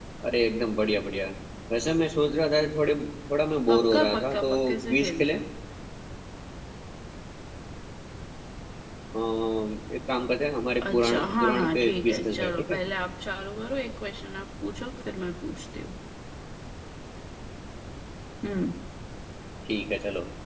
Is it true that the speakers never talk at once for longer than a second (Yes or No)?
No